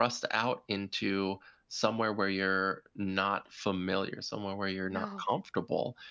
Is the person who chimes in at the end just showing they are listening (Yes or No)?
Yes